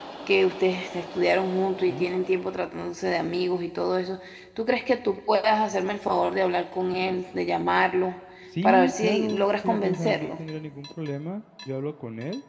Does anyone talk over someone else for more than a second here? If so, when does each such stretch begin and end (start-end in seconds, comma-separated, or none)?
8.6-10.3